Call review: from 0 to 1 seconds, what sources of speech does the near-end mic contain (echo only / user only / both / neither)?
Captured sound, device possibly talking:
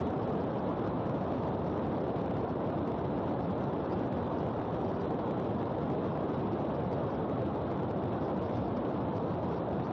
neither